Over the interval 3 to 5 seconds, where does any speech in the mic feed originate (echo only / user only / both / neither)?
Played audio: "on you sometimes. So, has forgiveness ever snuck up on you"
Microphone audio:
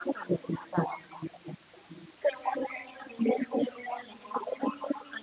echo only